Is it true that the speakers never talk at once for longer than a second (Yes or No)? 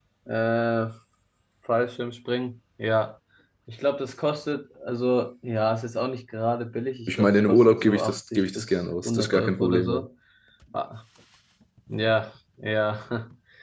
No